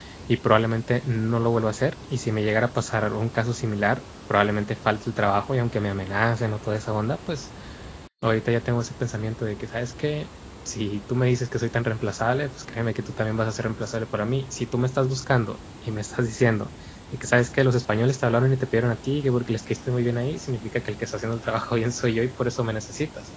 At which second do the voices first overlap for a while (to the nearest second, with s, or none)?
none